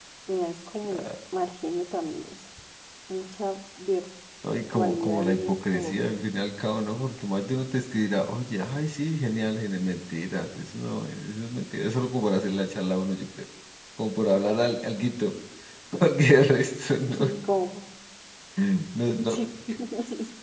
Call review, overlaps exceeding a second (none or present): present